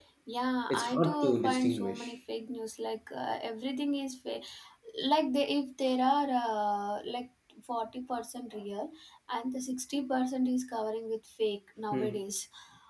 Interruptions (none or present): present